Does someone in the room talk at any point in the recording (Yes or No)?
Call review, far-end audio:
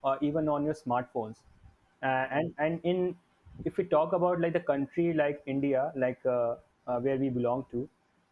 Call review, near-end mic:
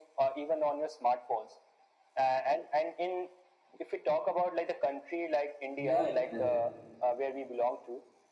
Yes